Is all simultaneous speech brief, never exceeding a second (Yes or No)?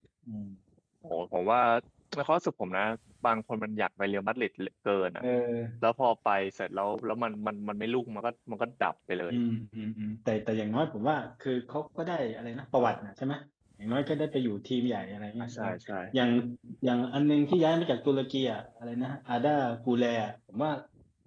Yes